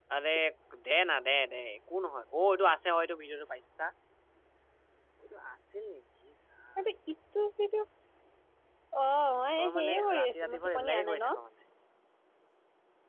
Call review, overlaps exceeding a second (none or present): present